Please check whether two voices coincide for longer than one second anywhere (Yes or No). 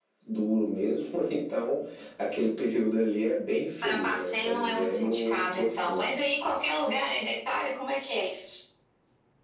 Yes